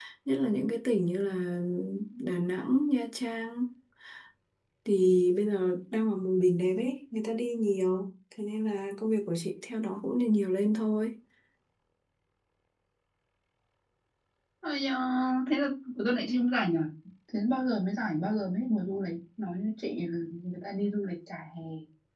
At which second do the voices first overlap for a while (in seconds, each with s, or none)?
none